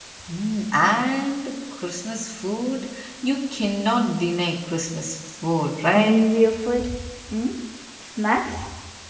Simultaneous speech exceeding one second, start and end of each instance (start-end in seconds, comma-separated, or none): none